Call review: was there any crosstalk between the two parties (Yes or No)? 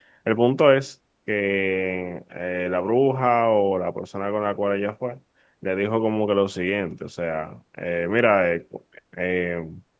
No